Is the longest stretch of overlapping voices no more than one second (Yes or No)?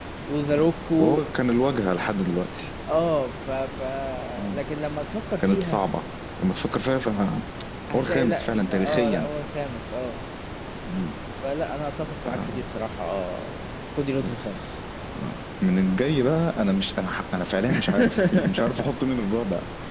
No